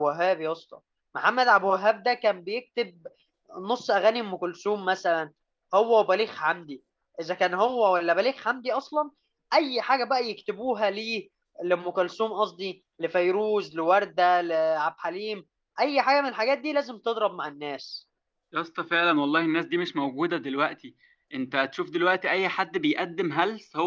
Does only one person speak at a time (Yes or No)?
Yes